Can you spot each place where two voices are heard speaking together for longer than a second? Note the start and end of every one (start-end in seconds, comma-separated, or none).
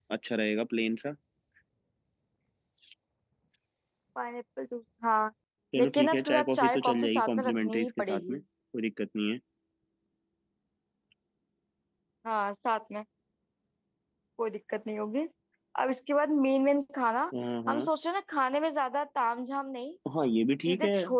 5.8-8.4